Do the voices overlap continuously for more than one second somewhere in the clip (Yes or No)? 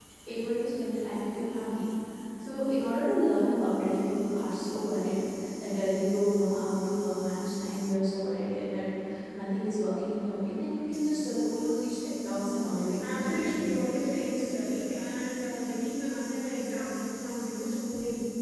Yes